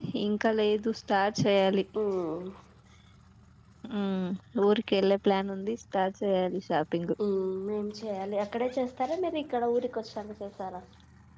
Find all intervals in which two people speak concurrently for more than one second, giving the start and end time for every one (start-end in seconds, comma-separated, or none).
none